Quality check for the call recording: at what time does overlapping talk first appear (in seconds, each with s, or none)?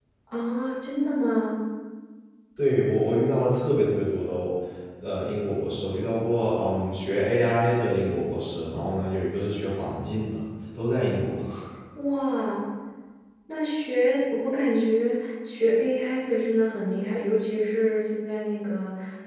none